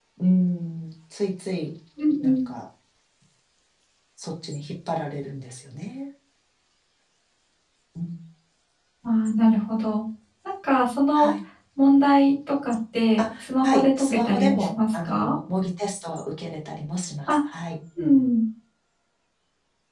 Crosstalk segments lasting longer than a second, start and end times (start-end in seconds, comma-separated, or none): 13.2-15.3